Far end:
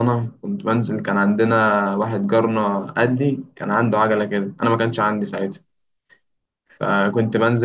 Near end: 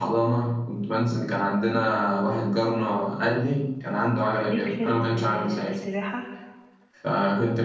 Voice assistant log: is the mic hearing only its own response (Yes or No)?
No